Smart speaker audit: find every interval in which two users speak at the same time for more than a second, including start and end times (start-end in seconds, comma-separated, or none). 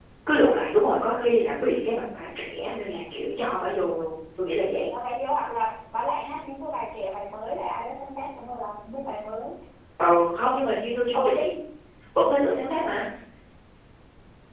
none